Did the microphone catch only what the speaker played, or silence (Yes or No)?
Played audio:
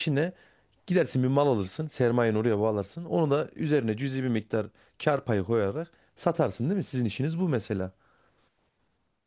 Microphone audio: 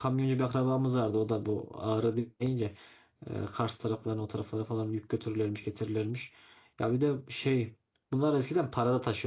No